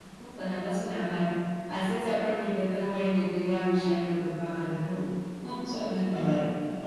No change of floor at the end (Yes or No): No